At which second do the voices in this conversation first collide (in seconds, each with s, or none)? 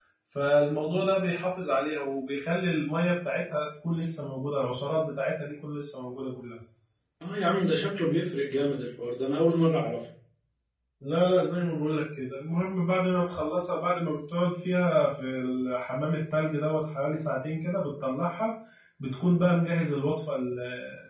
none